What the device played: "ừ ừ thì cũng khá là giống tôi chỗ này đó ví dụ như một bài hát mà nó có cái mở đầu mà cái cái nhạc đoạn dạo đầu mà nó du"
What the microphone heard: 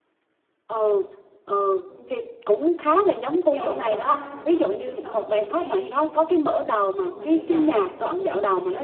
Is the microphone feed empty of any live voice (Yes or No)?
No